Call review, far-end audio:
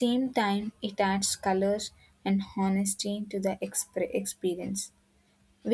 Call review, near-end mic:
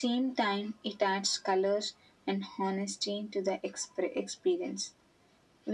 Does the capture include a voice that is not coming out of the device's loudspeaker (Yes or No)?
No